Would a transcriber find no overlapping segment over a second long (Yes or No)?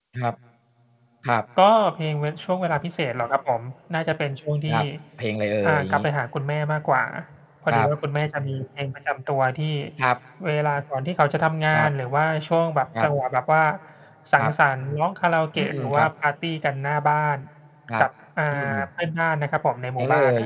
Yes